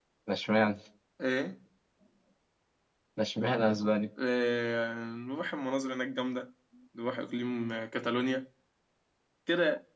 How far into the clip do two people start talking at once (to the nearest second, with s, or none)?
none